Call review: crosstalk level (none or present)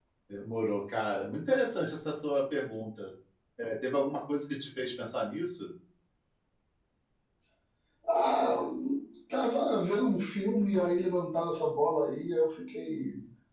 none